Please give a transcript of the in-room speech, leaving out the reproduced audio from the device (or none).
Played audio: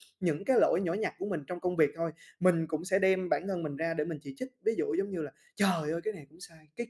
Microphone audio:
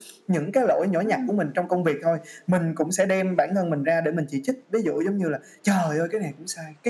Ừm.